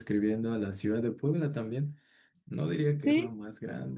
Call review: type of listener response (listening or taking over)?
listening